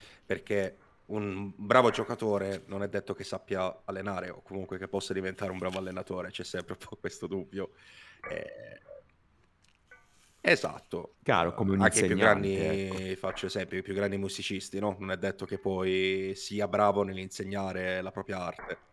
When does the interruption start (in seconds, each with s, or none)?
11.3 s